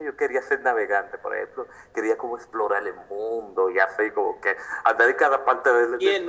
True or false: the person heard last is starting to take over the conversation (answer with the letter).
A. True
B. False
A